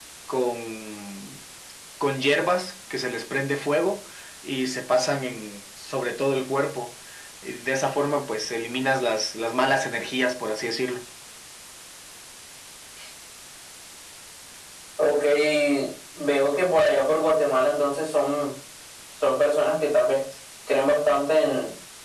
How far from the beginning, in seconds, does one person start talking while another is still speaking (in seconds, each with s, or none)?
none